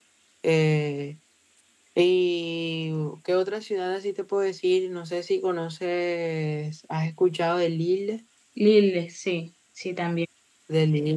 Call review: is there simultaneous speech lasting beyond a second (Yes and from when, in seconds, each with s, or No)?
No